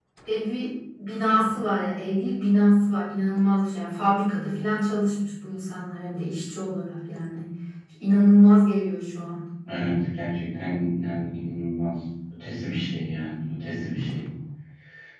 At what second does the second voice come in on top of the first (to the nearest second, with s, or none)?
none